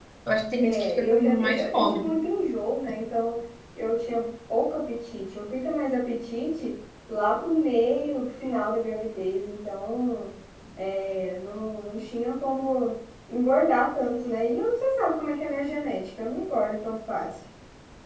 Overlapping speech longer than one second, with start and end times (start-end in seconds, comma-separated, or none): 0.6-2.1